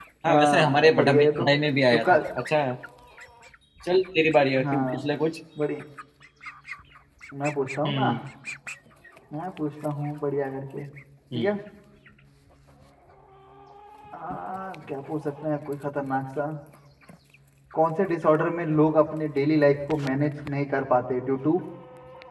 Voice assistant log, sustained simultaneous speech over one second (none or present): present